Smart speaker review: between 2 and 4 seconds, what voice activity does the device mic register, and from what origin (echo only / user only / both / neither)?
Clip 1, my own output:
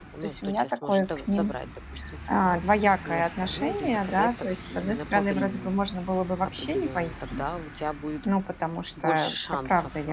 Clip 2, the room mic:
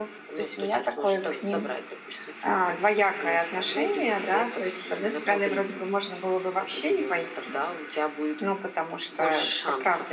echo only